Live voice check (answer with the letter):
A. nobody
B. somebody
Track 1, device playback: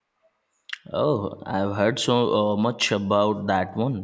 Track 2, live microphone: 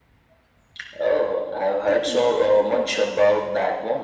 B